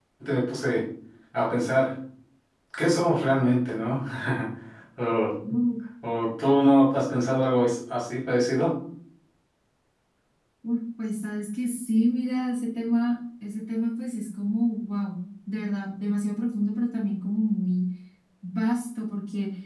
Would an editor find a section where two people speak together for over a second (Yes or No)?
No